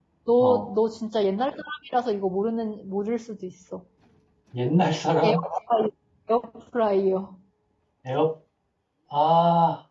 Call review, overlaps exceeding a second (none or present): none